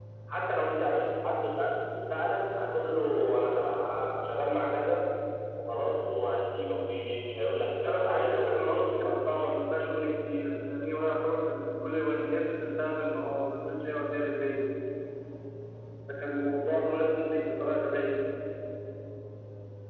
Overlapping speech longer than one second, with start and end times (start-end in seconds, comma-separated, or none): 7.9-9.6